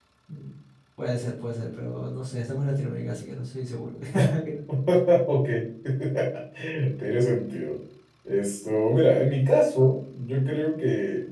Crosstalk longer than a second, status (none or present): none